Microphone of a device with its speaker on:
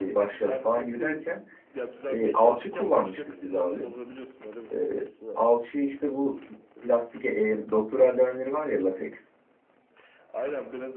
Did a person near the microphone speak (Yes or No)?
Yes